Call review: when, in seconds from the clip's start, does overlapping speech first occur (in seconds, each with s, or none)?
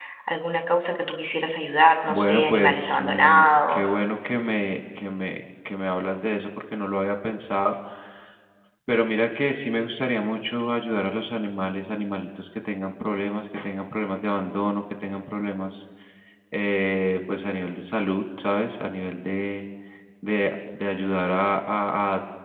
2.1 s